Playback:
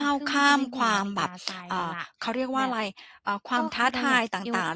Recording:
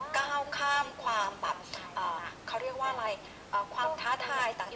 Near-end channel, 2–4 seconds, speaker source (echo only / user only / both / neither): echo only